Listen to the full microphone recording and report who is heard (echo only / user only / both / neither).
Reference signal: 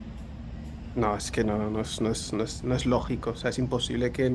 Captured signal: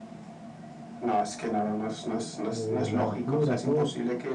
both